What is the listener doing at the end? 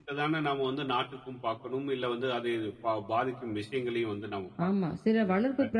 taking over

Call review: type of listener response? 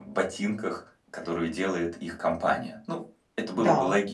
taking over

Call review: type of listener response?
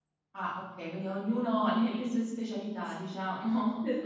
taking over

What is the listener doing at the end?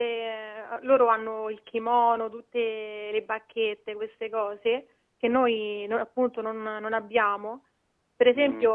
listening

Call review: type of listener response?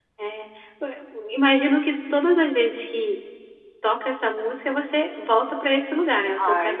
taking over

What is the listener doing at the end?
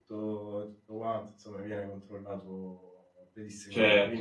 taking over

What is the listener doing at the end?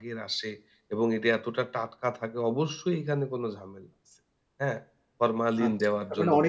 taking over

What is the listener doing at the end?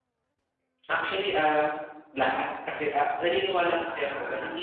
listening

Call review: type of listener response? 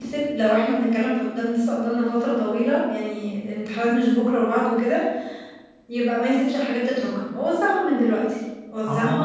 taking over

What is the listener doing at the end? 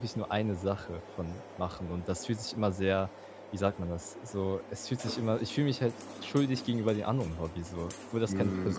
taking over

